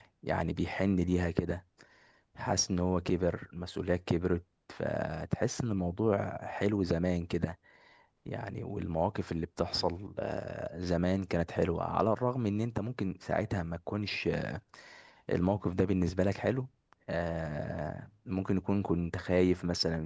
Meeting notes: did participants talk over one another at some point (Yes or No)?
No